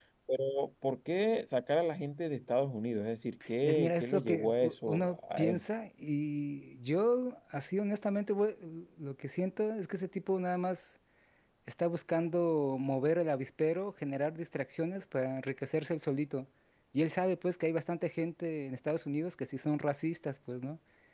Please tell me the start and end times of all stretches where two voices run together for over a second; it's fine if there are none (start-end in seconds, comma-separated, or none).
3.6-5.6